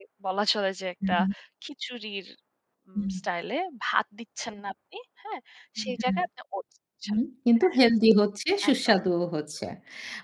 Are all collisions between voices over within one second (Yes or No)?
Yes